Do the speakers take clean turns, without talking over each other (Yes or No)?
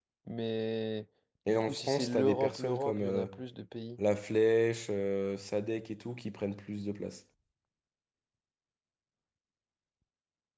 No